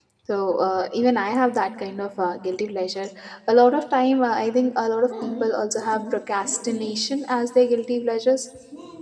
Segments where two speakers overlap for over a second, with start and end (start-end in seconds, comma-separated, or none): 5.1-6.9